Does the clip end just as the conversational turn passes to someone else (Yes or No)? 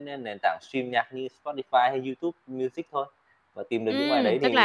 Yes